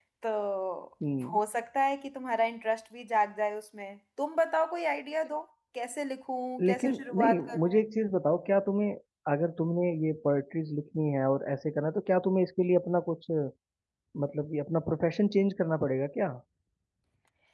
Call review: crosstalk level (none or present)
present